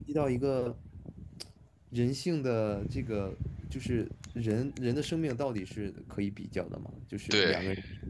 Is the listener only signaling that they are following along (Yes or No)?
No